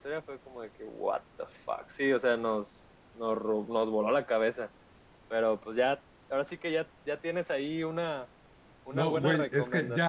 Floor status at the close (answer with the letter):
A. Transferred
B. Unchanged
A